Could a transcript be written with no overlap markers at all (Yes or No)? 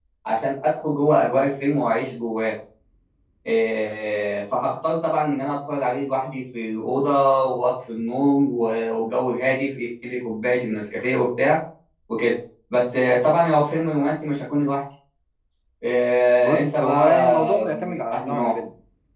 No